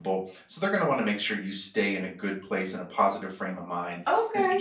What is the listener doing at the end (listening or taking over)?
listening